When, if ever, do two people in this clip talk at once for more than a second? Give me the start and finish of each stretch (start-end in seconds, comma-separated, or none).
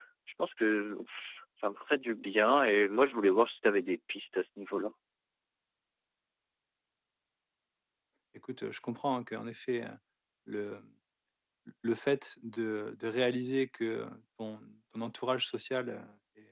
none